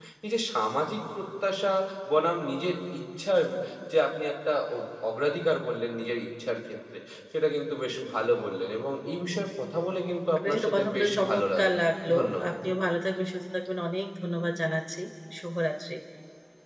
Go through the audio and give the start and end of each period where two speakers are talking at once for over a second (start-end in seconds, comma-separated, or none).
10.4-11.8